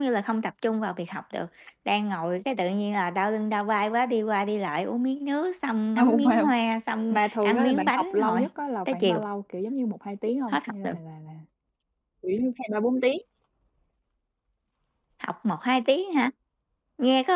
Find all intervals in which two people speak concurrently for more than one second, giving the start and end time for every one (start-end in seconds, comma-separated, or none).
7.1-8.4